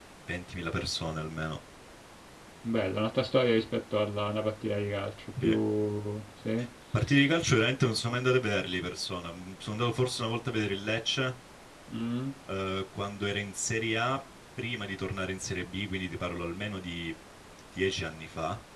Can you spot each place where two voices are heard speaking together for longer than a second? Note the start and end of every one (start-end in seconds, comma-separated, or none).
none